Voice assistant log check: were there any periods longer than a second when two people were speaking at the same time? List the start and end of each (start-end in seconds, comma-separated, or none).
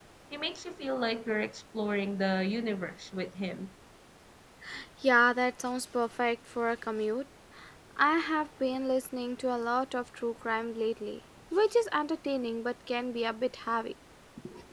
none